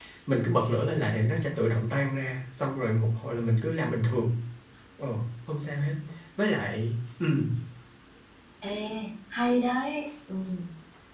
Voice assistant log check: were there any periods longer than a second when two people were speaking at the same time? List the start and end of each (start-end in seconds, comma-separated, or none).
none